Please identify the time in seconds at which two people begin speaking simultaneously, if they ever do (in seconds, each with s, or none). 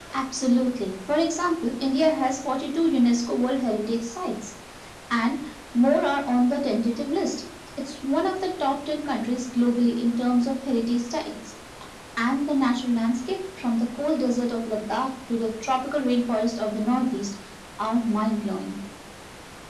none